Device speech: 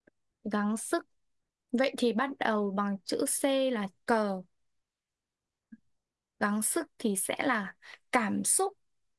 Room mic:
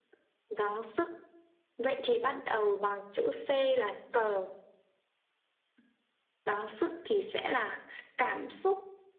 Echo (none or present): present